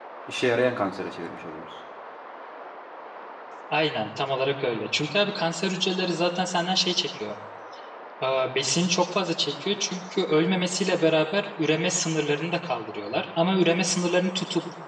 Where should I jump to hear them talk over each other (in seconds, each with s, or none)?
none